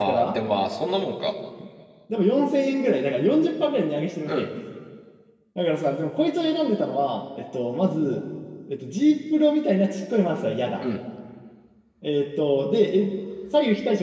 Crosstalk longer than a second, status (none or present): none